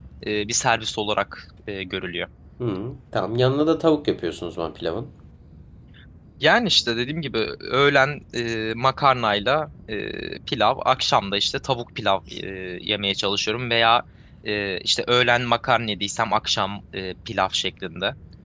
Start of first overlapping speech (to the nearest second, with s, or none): none